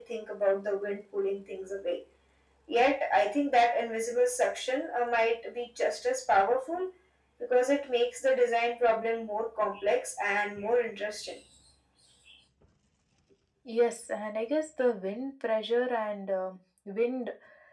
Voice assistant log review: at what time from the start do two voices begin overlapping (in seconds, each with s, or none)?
none